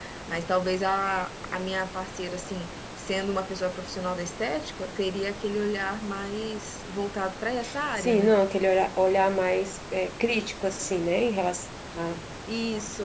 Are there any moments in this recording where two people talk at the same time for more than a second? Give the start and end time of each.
none

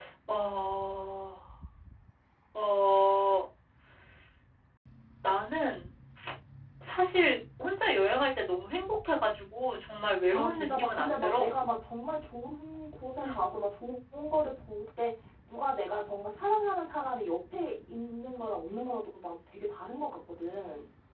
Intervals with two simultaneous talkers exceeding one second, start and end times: 10.3-11.5

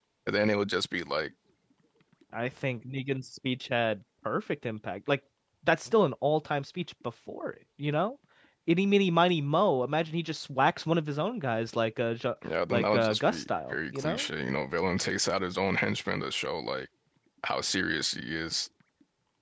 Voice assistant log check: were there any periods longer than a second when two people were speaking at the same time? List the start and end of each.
12.7-14.2

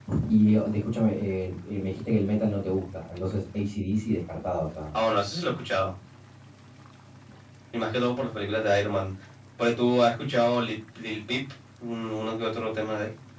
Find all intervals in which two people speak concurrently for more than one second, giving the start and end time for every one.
none

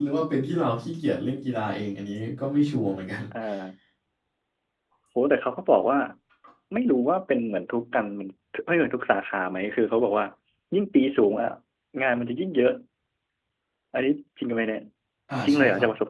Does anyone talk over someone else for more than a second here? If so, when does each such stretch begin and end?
none

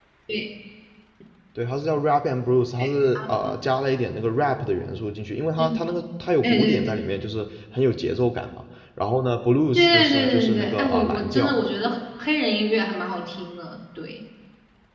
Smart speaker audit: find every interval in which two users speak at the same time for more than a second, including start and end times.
9.8-11.5

